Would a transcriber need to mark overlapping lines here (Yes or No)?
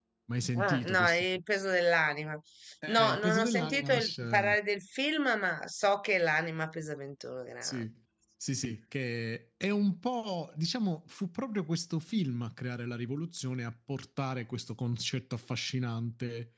Yes